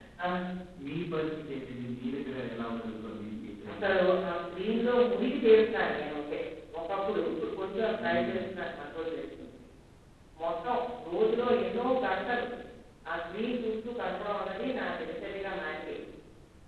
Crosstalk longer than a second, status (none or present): none